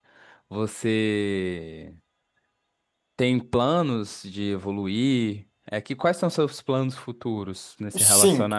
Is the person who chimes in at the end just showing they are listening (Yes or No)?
No